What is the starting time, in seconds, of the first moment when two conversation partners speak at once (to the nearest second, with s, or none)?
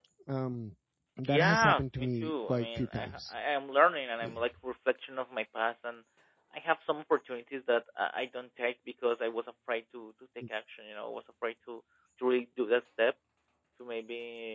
1 s